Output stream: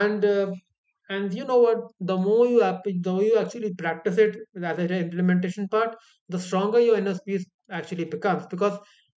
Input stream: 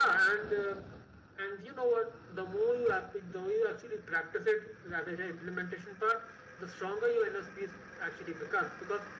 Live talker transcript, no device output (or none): none